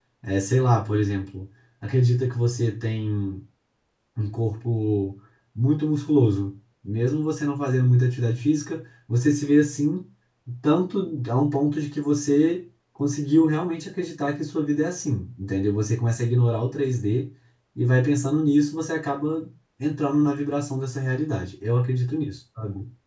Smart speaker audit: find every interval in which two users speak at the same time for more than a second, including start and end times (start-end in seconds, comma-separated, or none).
none